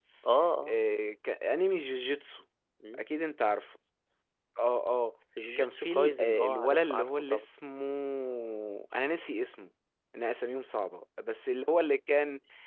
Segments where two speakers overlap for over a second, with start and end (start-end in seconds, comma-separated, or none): 5.6-7.4